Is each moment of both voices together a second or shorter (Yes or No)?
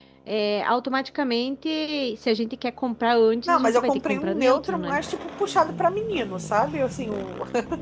No